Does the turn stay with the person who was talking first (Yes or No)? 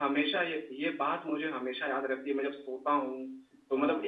Yes